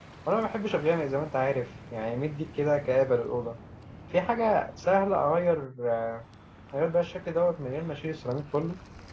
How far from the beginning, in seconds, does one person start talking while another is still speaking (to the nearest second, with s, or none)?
none